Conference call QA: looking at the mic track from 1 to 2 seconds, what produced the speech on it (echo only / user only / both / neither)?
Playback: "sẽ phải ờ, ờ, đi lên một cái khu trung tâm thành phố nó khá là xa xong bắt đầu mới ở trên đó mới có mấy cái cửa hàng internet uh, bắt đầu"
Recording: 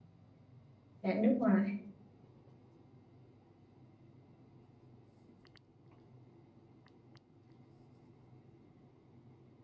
user only